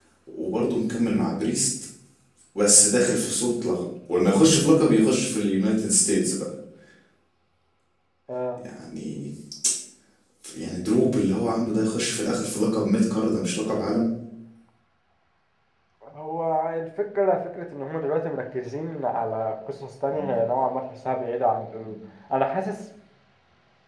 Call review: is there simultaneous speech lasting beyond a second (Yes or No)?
No